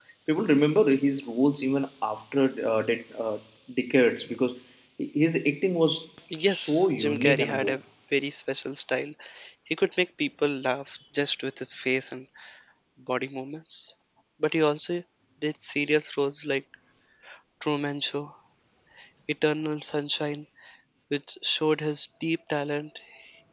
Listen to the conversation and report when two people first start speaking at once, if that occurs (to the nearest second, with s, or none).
6 s